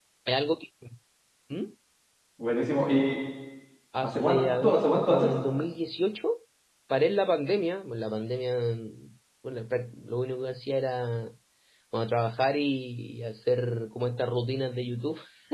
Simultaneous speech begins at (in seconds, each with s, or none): 4.0 s